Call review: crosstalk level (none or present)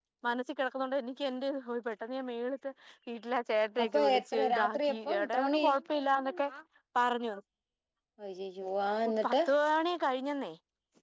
present